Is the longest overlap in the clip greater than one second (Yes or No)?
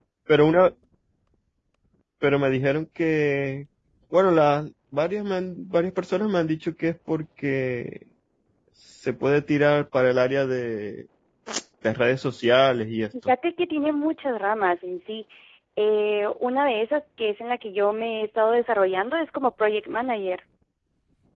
No